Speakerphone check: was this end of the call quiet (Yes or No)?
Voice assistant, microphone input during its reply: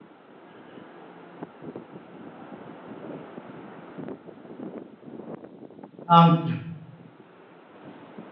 No